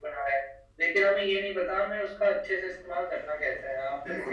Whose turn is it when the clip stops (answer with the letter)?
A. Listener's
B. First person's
A